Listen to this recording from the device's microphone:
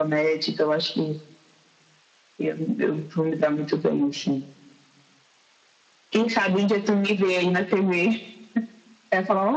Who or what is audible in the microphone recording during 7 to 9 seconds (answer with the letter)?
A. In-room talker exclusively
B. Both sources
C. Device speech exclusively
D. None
C